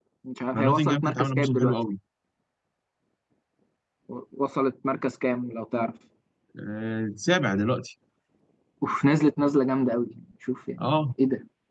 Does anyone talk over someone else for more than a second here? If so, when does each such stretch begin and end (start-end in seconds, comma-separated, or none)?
0.5-1.8